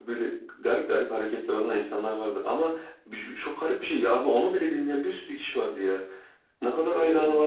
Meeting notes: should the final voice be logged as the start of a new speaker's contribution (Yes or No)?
No